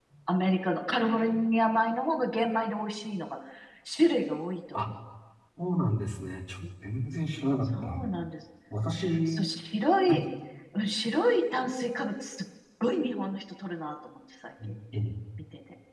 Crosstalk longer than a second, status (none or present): none